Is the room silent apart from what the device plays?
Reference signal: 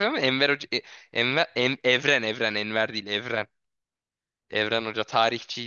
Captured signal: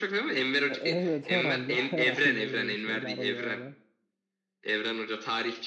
No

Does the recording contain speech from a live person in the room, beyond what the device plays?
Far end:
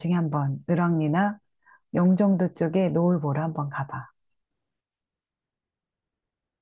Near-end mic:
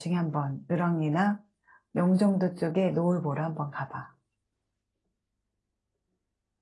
No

